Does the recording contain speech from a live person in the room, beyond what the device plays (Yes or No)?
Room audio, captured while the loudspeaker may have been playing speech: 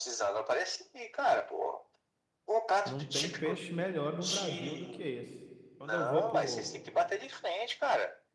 Yes